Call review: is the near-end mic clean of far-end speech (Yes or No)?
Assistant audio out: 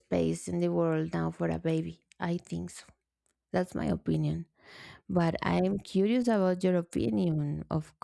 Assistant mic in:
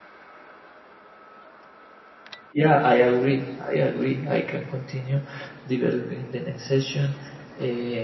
Yes